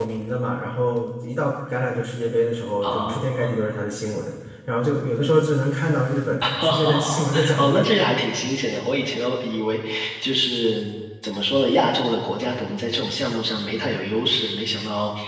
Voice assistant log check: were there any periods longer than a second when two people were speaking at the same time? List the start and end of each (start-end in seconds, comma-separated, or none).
6.4-8.0